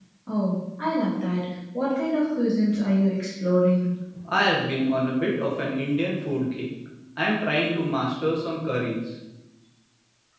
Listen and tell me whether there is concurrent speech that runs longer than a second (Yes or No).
No